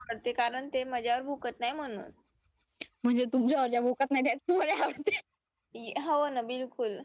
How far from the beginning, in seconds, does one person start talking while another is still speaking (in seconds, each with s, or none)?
none